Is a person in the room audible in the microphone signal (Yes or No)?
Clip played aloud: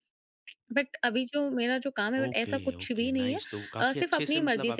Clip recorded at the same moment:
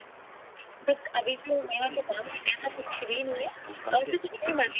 Yes